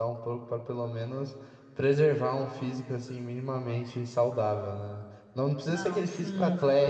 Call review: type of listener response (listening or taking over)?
listening